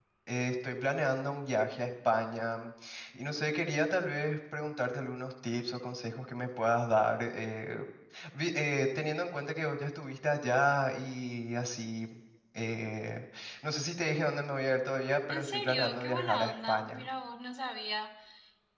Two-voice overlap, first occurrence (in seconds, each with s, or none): 15.3 s